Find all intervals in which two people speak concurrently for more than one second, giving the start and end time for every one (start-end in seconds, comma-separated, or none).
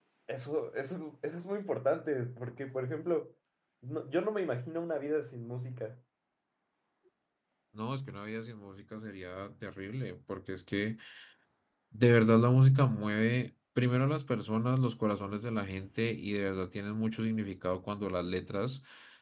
none